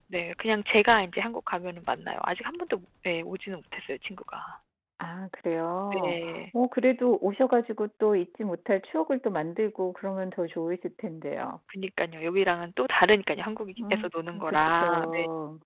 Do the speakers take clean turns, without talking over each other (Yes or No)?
No